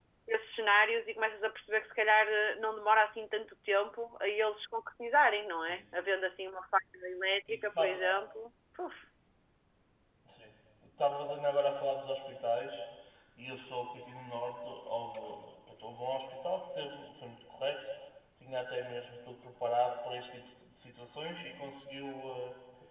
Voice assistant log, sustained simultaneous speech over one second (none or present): none